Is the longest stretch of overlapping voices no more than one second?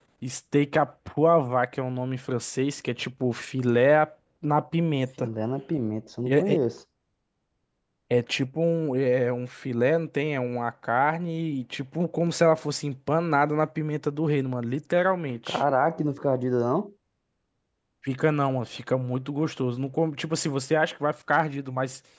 Yes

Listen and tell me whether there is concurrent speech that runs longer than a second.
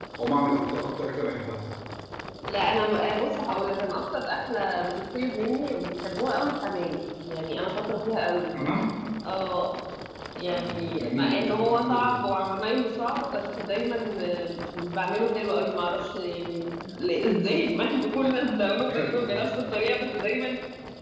Yes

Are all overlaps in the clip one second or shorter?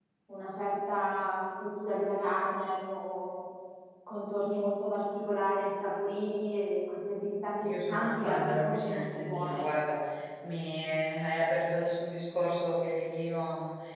No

